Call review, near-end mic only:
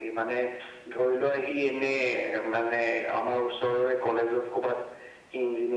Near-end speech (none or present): none